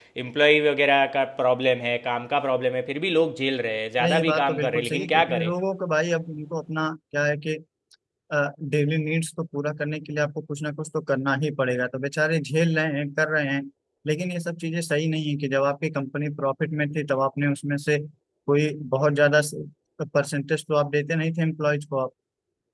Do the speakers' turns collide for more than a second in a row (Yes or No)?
Yes